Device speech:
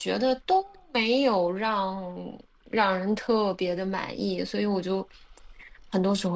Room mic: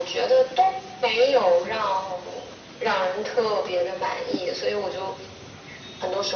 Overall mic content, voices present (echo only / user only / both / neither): echo only